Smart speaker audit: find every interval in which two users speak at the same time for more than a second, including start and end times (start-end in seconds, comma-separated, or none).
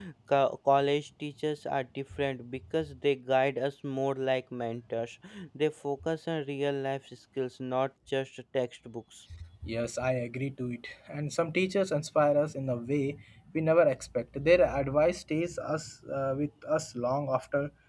none